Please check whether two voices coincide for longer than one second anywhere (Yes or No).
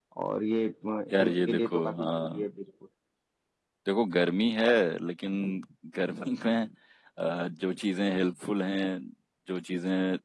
Yes